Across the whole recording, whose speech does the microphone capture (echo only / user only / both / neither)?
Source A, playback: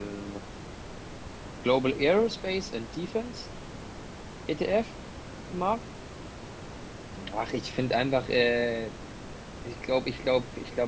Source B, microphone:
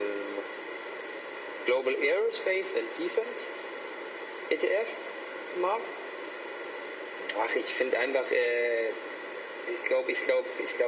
echo only